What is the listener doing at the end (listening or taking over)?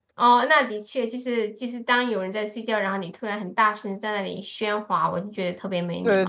taking over